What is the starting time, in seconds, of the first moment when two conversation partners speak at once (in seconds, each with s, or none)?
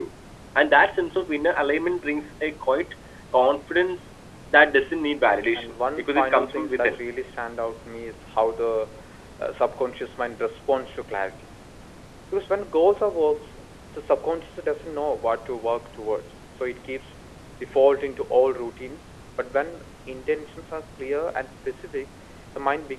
5.2 s